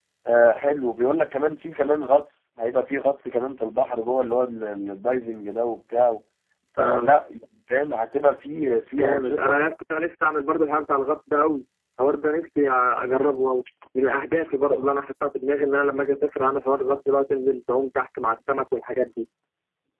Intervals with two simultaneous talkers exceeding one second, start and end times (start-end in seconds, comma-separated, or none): none